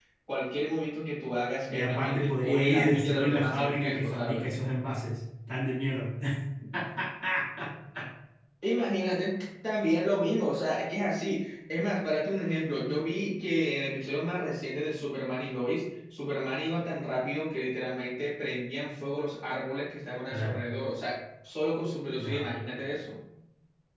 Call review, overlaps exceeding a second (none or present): present